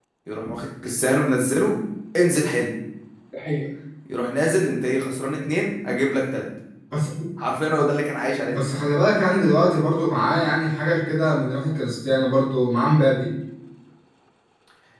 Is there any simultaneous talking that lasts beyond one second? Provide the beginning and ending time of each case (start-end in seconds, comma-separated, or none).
none